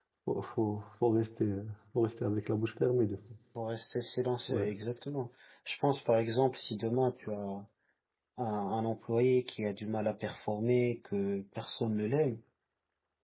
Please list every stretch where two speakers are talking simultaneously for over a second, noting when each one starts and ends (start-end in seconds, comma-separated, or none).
none